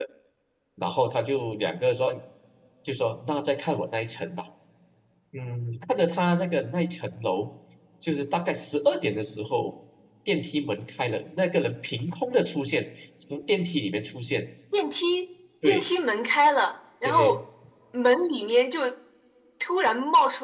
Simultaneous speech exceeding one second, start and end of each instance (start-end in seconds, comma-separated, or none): none